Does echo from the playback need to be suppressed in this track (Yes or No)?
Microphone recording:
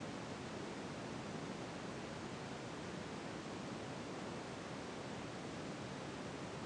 No